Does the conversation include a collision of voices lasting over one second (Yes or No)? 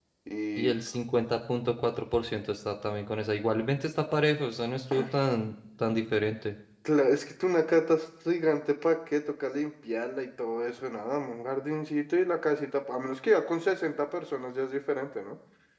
No